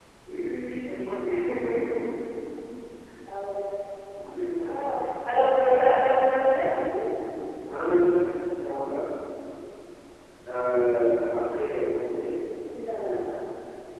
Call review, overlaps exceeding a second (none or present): none